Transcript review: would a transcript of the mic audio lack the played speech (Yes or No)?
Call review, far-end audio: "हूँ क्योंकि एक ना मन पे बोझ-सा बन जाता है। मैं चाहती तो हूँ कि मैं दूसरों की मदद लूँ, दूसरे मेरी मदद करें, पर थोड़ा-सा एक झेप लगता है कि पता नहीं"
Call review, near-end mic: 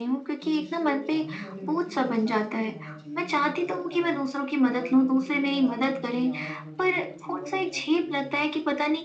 No